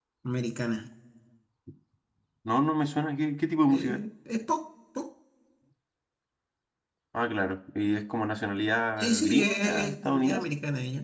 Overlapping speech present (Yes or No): Yes